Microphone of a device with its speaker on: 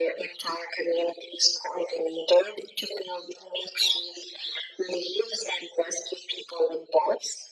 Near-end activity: none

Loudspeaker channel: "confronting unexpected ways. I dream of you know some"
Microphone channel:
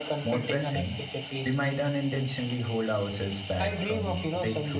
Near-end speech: present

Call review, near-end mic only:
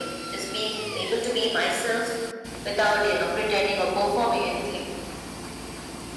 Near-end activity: none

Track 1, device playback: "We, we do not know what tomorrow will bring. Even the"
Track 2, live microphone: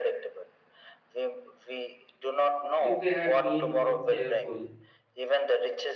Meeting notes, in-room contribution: present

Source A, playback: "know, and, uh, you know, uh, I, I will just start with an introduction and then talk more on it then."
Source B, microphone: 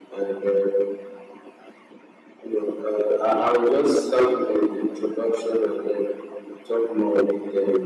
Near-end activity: none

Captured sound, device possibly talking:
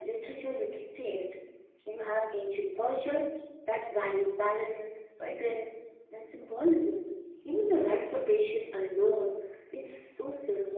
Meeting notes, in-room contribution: none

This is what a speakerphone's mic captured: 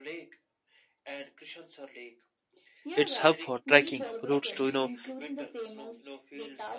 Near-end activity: present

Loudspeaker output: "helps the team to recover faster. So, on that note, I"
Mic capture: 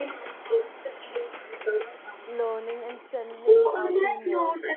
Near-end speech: present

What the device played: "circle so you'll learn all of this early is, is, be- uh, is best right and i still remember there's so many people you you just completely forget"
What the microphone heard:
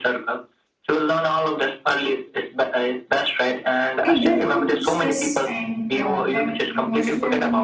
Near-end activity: present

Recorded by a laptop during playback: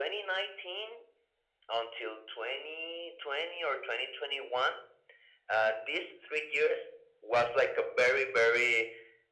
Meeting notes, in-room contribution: none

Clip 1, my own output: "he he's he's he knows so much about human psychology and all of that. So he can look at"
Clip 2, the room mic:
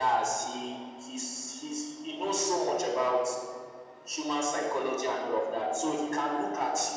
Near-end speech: none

